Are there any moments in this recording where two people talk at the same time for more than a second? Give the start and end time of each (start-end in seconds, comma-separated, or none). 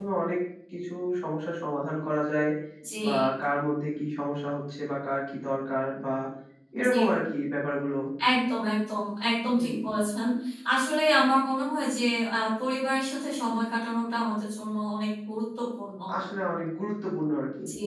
none